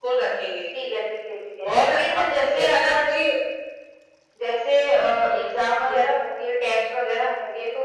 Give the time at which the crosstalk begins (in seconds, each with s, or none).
1.7 s